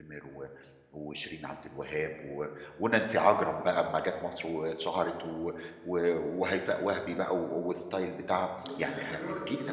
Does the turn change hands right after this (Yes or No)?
Yes